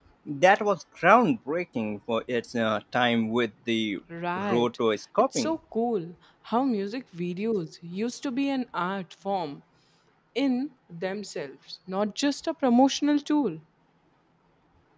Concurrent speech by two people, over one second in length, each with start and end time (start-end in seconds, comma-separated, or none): none